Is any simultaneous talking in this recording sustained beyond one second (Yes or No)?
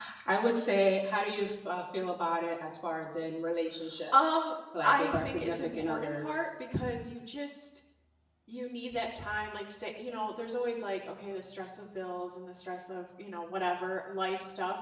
Yes